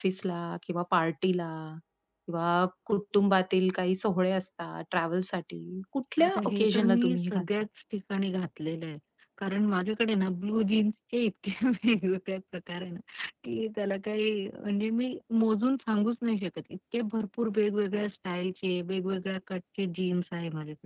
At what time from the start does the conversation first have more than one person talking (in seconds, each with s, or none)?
6.2 s